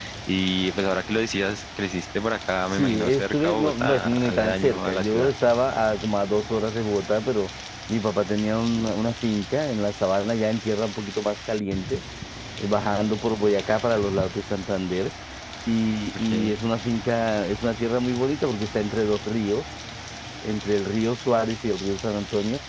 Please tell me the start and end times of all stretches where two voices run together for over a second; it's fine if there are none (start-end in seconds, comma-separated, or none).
2.7-5.3